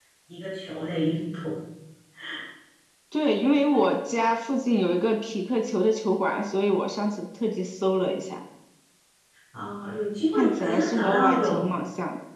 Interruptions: present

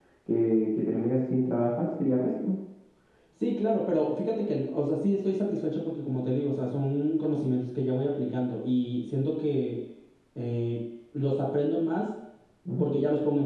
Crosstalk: none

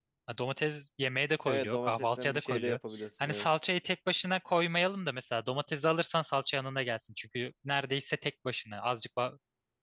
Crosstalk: present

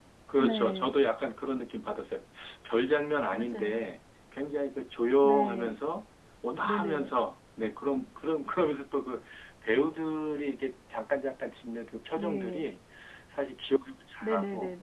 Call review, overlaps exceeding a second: none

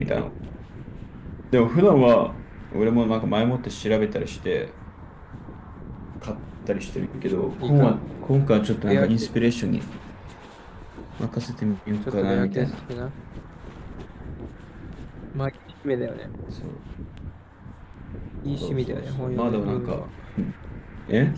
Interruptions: present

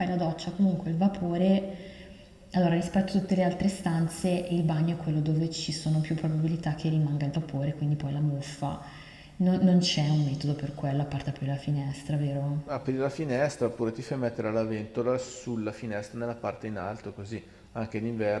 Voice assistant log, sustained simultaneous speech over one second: none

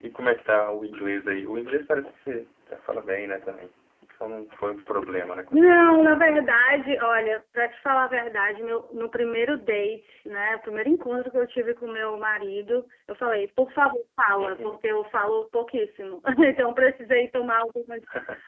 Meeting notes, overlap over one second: none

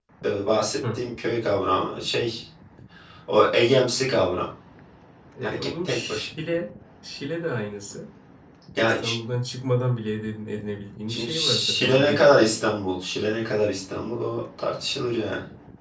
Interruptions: present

